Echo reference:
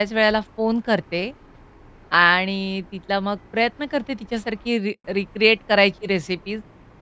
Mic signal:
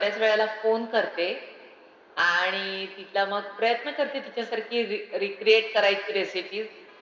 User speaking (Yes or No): No